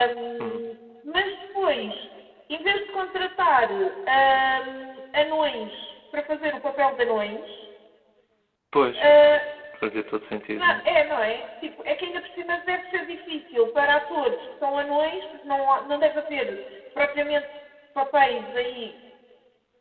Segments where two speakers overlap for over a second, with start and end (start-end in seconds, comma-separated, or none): none